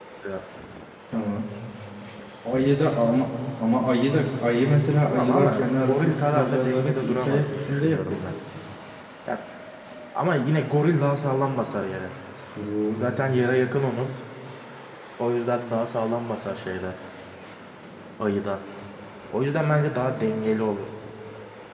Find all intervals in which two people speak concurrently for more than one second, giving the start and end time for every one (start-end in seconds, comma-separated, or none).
5.0-8.2